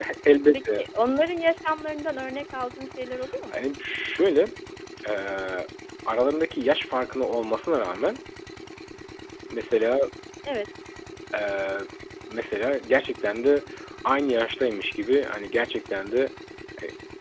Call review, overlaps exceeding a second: none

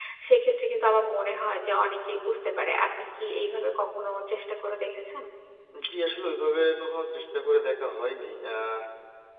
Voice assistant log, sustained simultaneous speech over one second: none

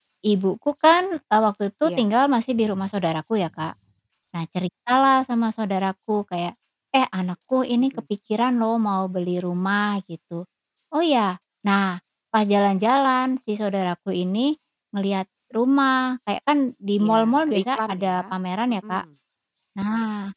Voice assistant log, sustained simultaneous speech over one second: present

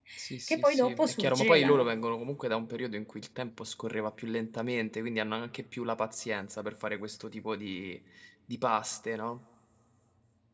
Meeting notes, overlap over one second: present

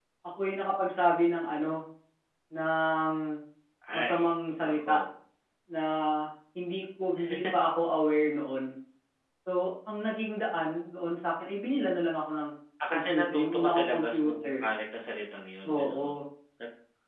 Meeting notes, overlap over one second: present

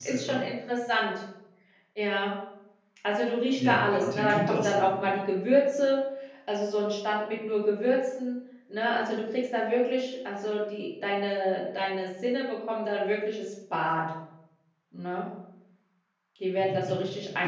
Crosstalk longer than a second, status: present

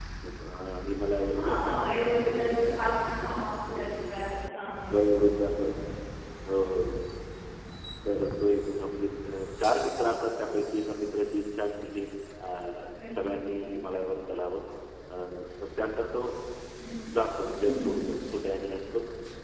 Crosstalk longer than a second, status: present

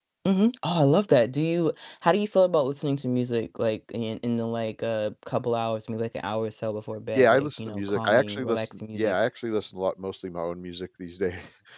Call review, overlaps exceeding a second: present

